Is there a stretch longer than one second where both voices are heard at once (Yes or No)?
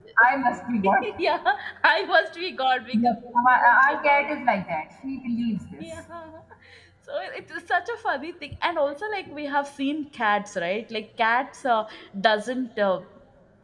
Yes